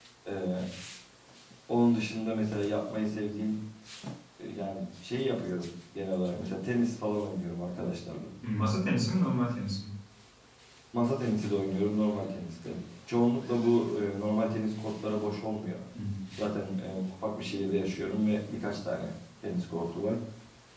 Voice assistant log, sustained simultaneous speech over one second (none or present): none